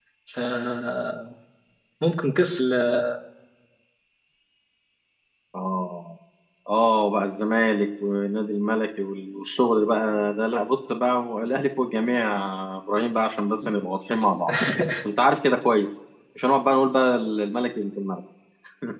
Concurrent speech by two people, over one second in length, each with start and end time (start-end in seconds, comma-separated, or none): none